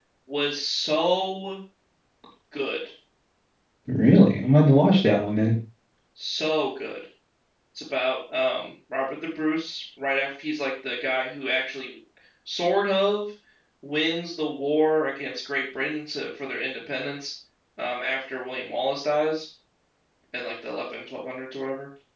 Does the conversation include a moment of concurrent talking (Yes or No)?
No